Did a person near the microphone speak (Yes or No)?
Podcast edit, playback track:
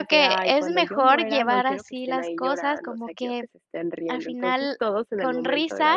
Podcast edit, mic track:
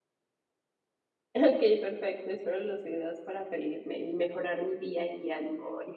Yes